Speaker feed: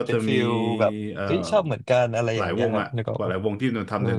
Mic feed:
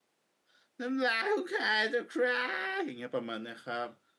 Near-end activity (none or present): present